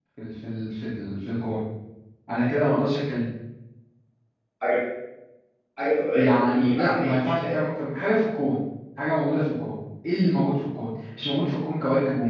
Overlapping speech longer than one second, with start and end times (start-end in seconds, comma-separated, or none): 6.1-7.5